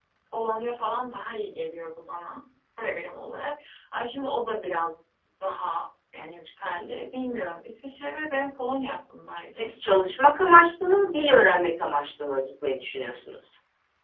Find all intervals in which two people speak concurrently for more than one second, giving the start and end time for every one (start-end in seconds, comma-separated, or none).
none